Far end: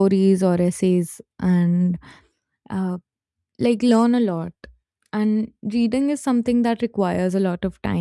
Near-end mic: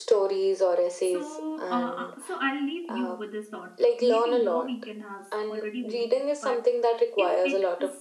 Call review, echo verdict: present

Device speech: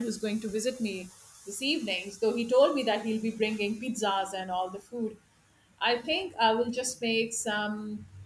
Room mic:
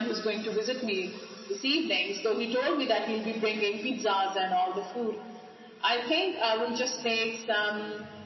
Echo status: present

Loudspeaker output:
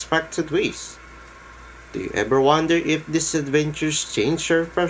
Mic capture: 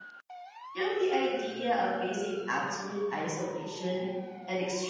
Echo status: none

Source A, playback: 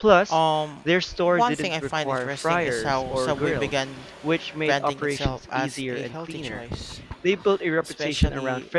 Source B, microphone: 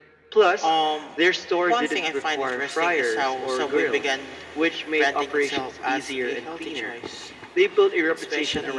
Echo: present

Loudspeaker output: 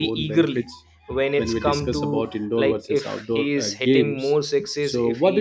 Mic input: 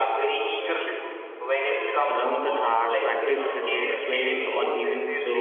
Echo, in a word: present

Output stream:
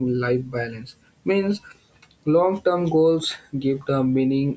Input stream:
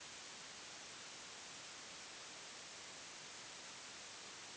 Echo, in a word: none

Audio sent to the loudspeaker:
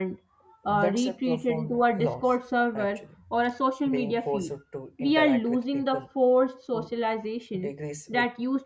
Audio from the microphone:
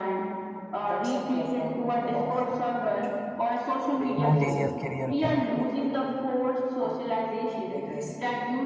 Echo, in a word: present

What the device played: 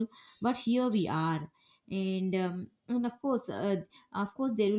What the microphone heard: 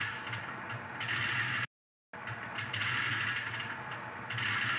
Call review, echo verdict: none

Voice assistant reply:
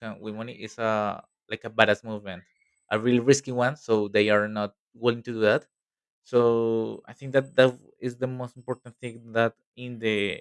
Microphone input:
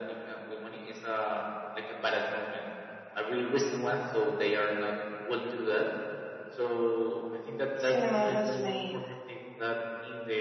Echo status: present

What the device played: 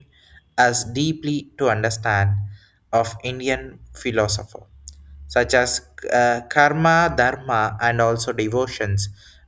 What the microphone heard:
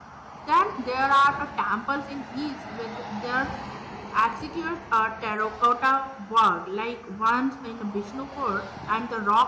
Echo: none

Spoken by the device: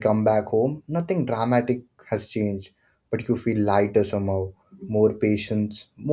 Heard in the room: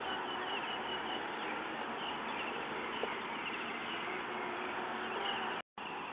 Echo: none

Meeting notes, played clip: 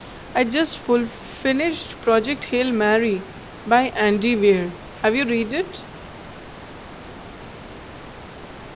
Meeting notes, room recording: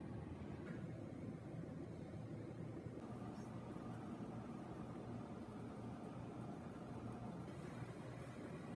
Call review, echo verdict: none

